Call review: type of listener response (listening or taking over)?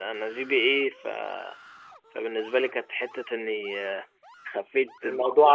listening